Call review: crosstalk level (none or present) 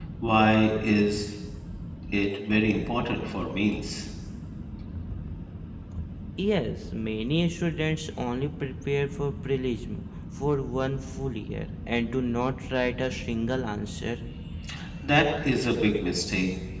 none